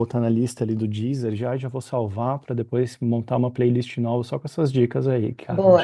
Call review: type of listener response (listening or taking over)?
taking over